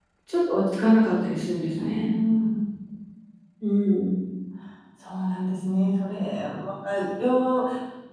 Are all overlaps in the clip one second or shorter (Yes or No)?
Yes